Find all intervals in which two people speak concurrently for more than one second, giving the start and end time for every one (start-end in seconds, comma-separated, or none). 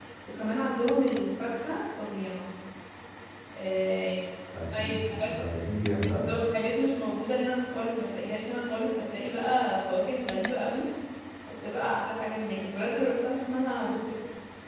none